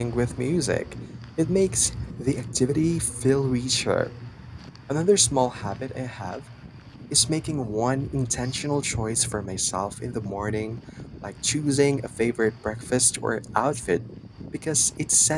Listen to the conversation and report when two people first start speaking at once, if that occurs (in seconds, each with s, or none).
none